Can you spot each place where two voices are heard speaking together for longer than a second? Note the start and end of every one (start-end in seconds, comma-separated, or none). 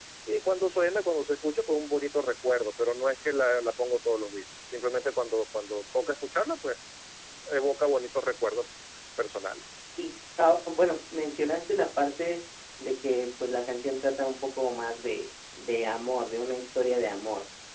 none